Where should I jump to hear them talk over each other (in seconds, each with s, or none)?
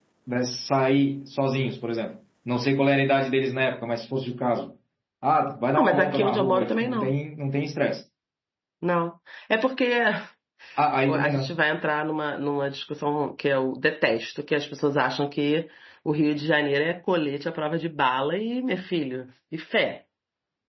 5.8 s